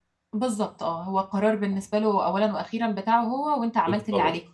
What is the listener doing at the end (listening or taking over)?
taking over